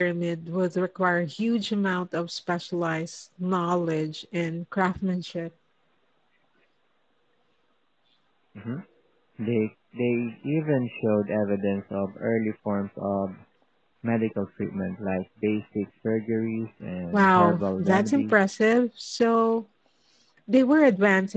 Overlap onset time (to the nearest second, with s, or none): 17 s